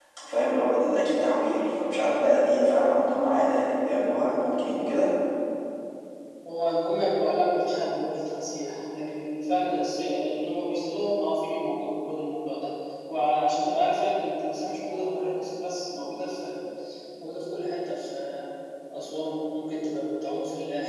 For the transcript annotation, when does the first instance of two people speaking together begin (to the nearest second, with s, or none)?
none